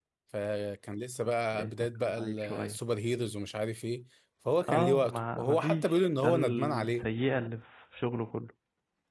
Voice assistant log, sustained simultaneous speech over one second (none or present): present